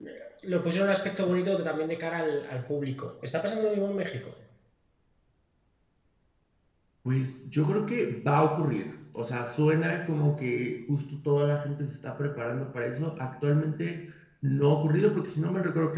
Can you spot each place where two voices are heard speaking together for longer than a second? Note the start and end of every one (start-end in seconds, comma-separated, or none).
none